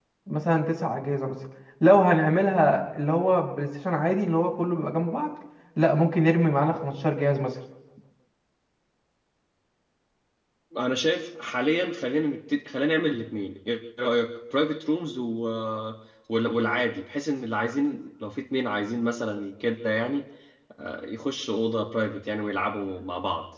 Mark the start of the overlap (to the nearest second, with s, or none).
none